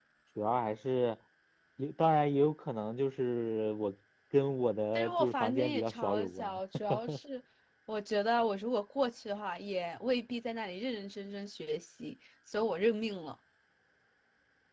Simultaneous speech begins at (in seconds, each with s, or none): 4.9 s